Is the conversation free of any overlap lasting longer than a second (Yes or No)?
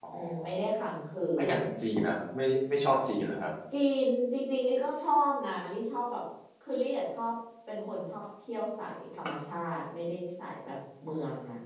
Yes